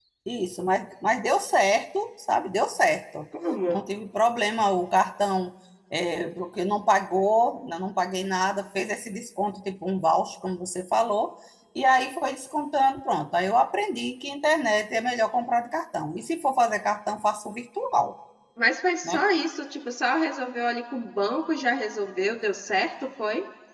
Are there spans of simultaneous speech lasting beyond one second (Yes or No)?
No